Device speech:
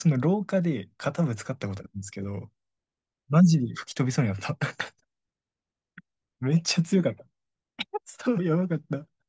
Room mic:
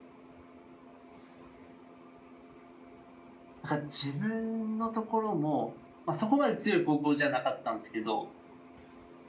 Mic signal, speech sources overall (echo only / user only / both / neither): user only